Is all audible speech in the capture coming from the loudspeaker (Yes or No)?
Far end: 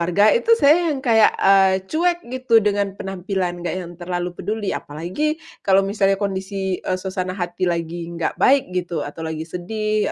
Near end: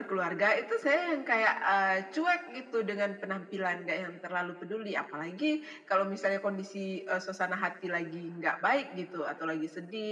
Yes